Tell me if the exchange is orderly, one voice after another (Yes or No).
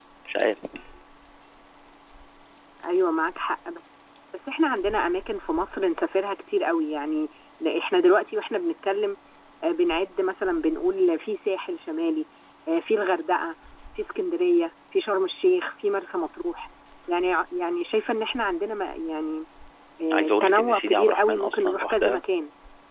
No